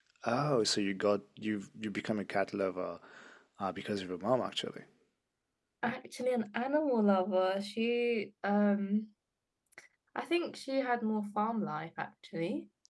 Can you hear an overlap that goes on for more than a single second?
No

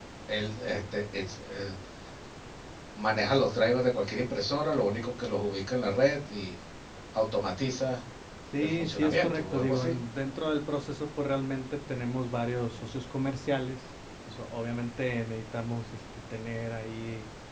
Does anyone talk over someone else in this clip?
Yes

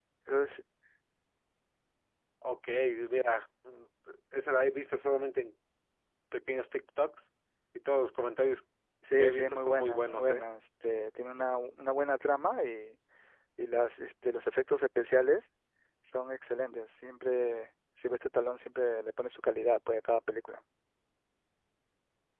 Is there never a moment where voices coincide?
No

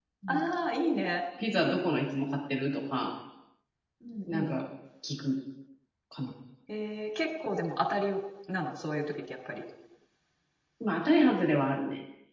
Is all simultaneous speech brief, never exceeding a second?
Yes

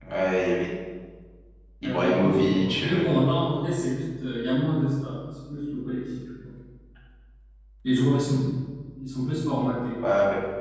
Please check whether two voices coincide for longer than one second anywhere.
Yes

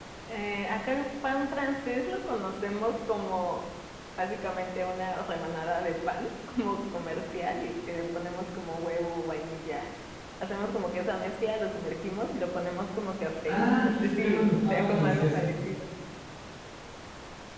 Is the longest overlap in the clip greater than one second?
Yes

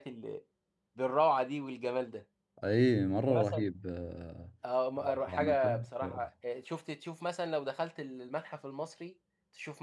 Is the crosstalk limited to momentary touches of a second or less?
No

